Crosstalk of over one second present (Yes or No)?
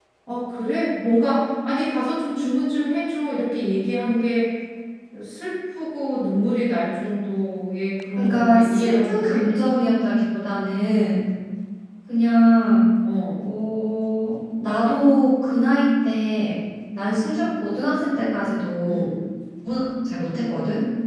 Yes